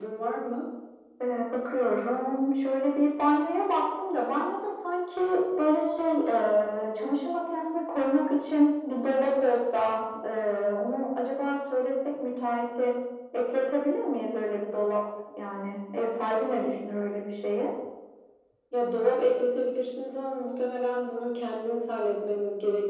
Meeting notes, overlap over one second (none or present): none